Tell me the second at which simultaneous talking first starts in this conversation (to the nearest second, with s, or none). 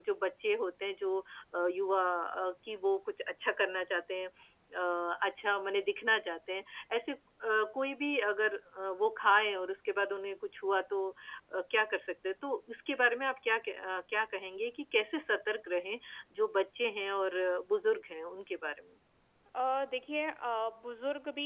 none